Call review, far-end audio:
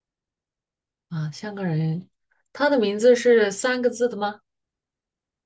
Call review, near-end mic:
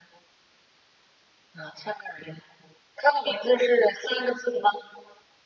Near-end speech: none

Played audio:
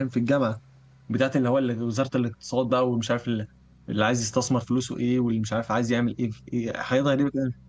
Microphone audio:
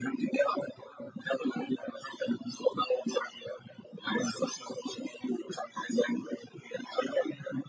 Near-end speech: none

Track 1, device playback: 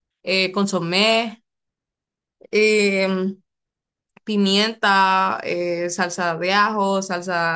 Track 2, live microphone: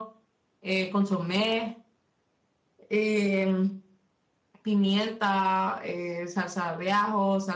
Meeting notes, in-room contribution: none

